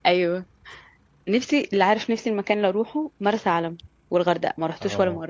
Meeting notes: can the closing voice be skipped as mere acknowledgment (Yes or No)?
No